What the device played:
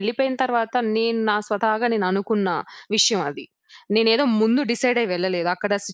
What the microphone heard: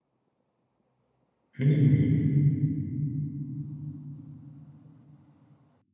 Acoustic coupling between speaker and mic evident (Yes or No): No